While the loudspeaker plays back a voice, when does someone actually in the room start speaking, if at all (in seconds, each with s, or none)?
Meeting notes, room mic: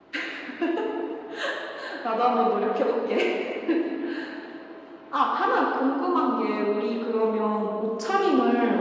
none